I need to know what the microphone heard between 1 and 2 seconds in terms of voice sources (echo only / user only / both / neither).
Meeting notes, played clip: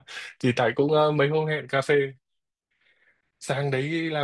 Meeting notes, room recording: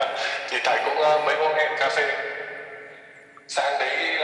echo only